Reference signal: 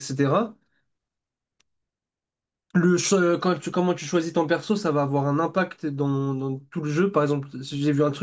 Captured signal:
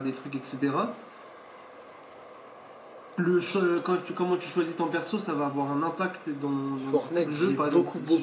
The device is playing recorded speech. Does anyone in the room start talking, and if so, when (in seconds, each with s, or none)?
6.8 s